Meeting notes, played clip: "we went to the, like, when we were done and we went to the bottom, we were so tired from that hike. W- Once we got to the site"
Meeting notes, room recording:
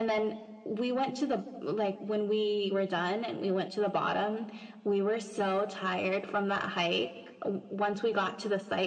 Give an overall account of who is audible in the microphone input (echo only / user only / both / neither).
echo only